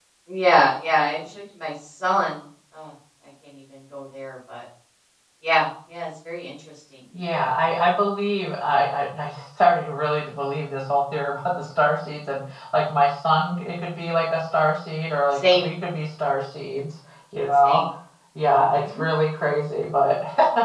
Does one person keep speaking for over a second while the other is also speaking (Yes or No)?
No